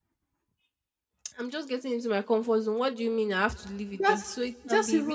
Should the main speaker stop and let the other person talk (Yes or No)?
Yes